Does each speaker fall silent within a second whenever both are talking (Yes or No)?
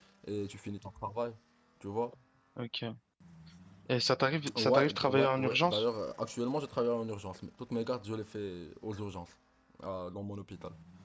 No